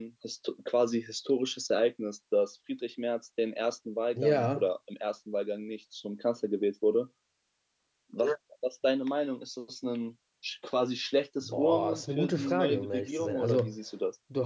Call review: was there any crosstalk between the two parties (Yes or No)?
Yes